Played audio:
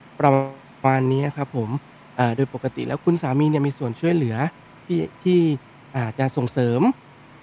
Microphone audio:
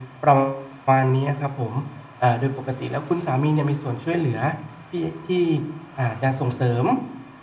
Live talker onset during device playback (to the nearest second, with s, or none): none